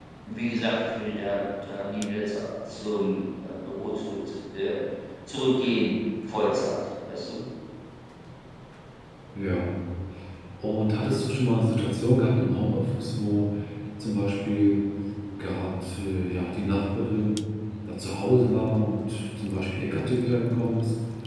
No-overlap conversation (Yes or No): Yes